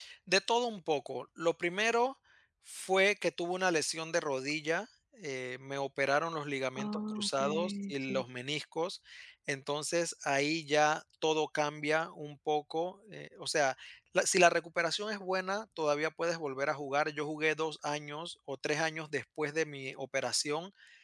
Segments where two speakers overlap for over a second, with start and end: 6.8-8.2

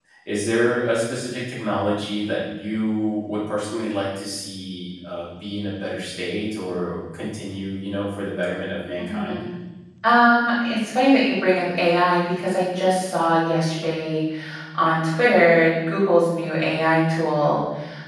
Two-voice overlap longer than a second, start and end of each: none

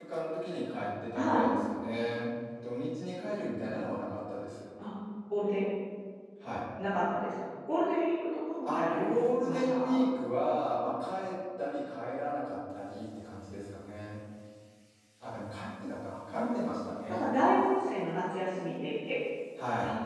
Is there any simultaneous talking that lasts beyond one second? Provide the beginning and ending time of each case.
8.6-9.9

